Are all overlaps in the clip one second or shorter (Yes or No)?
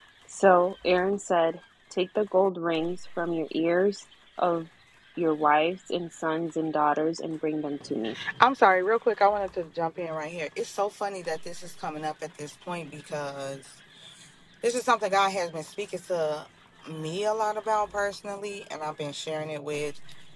Yes